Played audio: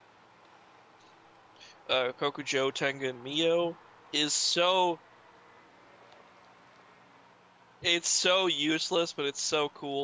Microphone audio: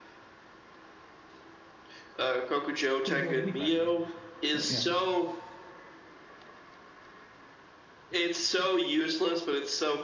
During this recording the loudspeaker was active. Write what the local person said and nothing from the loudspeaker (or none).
could have healed anybody, right? But yeah,